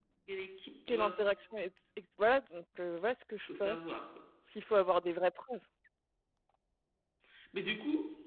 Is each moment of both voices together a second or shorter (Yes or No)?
Yes